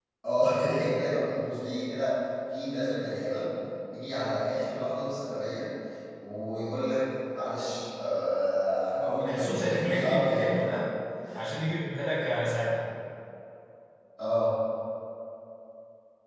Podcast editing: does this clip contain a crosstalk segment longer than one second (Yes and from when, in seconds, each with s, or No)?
Yes, from 9.0 s